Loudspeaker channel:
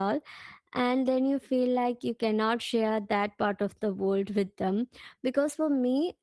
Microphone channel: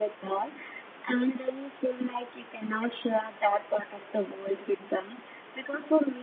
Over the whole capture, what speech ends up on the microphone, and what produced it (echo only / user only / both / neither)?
echo only